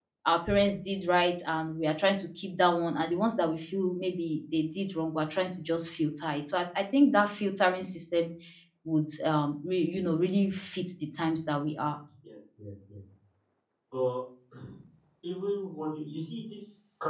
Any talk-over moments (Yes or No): No